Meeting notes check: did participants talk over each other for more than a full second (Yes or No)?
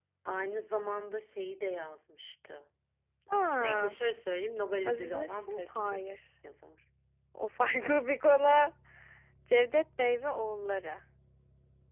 Yes